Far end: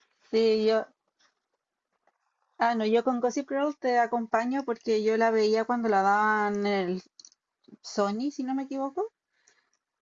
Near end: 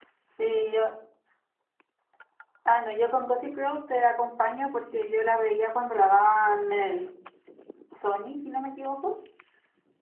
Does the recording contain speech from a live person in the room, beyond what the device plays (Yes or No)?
No